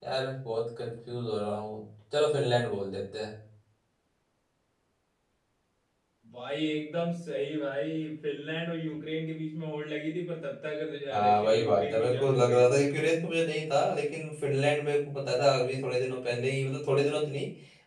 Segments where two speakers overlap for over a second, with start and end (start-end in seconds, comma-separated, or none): 11.1-12.8